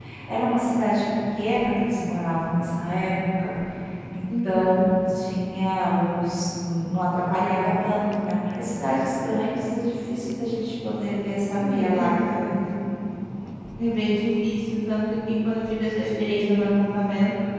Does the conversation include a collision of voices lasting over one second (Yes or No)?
No